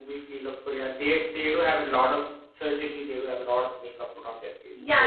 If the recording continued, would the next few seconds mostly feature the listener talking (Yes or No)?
Yes